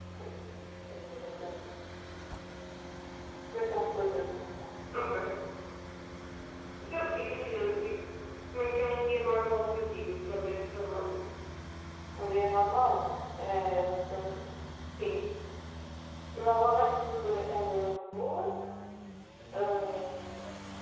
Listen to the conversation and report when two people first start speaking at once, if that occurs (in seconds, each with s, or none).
none